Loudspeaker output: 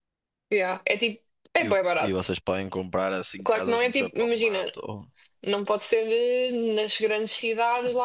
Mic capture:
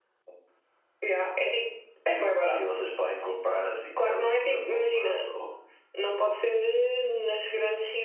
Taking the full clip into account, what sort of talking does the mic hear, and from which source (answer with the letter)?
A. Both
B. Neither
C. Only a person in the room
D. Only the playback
D